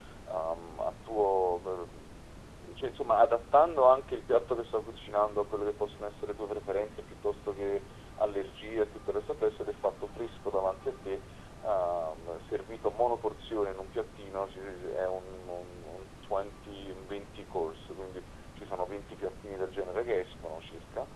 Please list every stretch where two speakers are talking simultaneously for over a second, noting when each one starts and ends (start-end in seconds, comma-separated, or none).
none